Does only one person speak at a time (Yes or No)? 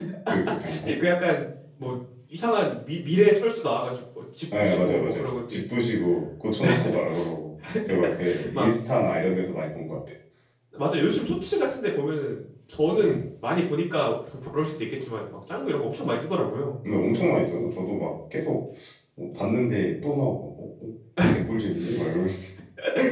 No